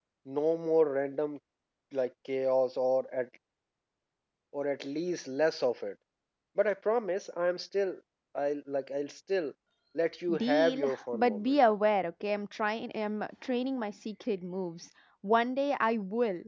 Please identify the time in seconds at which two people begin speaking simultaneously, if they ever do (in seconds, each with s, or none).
10.4 s